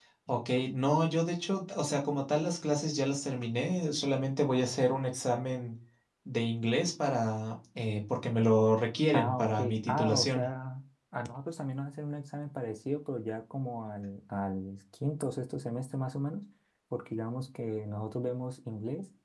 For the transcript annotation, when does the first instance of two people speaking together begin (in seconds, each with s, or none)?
9.1 s